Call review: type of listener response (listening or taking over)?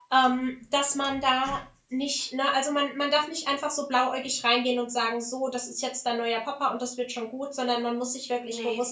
listening